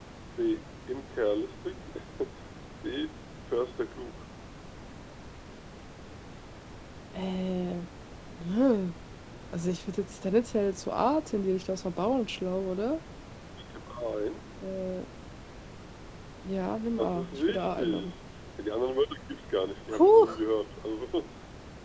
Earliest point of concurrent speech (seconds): 16.9 s

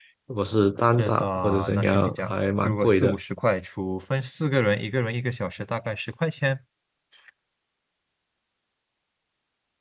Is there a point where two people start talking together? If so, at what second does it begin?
1.0 s

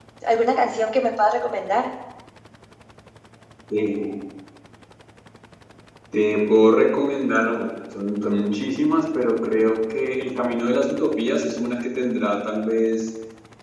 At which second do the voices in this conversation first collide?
none

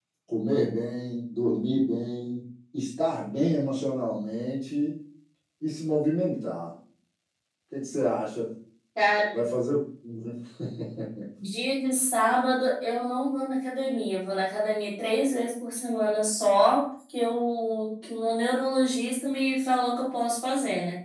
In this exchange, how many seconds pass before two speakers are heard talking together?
none

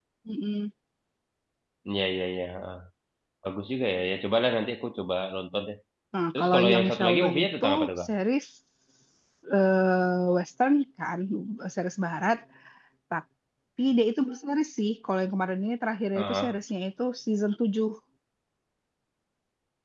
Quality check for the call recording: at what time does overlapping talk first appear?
6.4 s

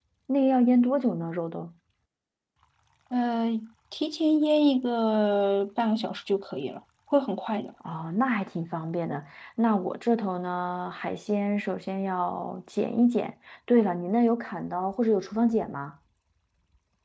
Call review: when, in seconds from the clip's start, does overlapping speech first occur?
none

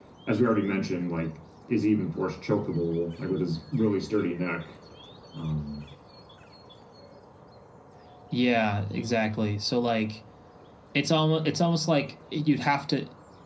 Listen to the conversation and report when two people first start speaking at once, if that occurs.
none

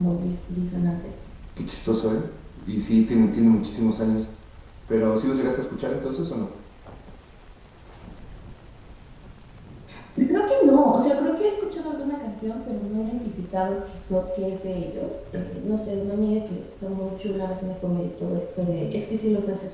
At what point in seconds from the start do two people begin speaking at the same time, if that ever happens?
none

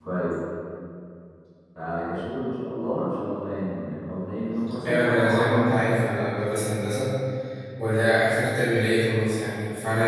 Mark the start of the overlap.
4.8 s

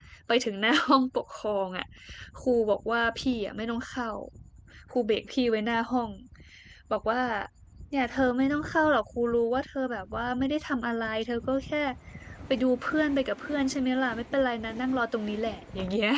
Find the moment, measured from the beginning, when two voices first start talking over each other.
none

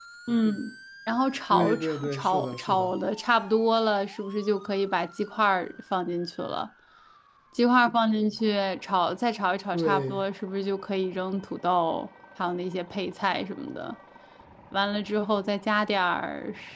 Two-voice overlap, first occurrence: 1.5 s

